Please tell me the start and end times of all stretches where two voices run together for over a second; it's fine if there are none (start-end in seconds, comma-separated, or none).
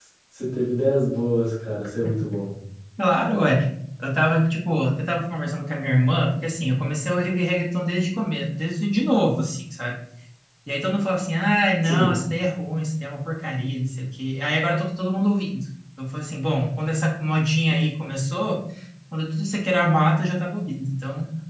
none